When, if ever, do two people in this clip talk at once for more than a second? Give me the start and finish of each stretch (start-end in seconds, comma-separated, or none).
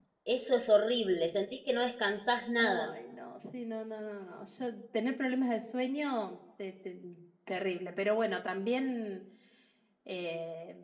none